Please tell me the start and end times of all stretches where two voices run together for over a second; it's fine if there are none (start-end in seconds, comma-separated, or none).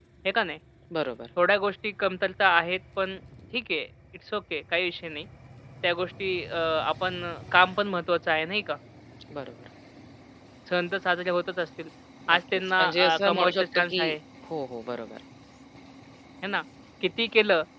12.3-14.0